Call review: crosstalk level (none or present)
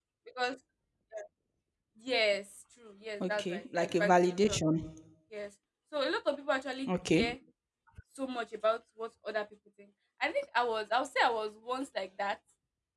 present